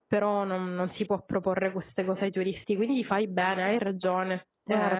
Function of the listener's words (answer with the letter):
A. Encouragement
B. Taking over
B